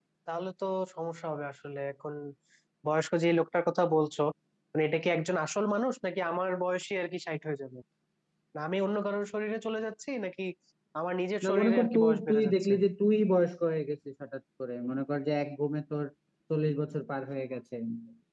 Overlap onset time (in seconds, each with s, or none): 11.4 s